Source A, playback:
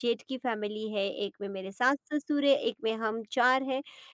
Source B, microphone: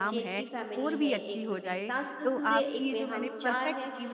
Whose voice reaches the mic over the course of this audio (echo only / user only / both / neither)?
both